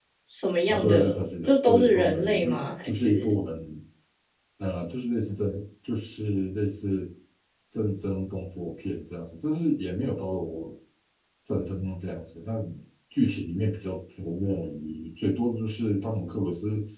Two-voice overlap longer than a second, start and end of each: 0.7-3.3

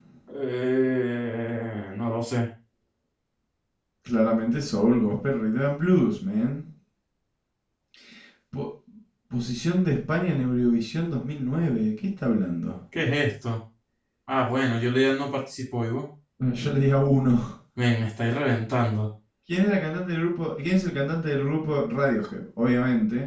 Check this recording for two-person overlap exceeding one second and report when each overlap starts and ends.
none

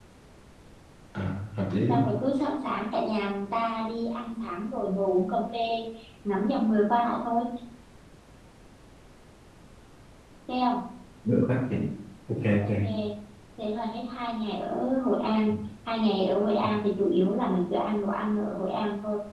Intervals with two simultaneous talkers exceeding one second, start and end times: none

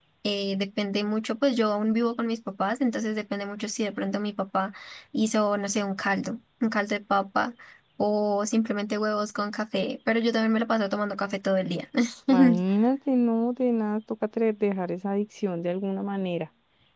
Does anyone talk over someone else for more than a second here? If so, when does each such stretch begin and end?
none

